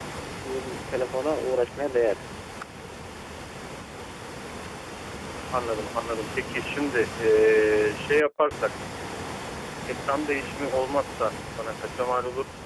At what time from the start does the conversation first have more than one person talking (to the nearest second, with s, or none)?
none